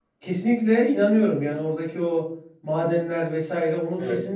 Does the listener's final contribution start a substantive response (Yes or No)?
No